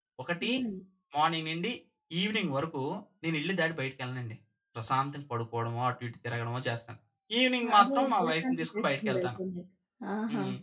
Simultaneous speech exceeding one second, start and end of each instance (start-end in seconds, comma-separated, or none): 7.8-9.3